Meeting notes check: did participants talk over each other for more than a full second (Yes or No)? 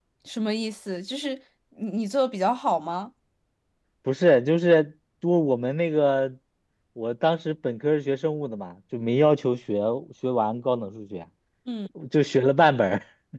No